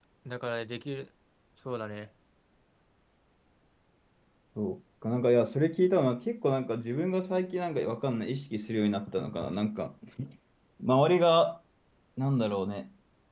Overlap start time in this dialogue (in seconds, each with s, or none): none